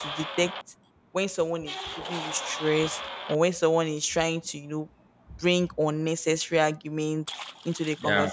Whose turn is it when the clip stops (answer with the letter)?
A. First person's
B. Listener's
A